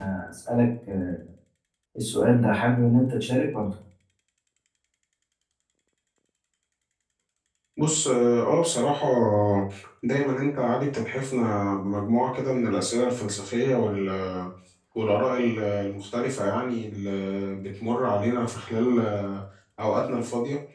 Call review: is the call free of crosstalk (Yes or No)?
Yes